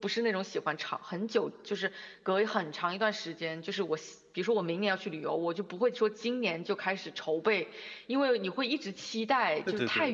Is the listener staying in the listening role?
Yes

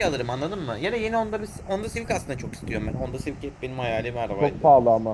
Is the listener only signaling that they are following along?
No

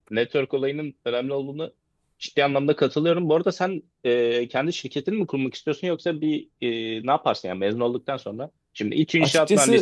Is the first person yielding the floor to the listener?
No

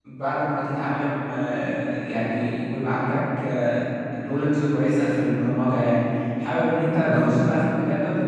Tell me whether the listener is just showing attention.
Yes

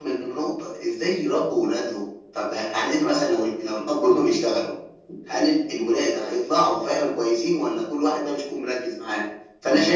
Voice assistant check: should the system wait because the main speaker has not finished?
Yes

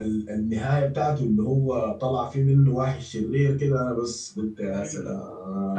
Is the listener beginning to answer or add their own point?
Yes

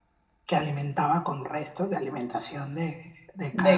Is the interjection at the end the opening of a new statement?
Yes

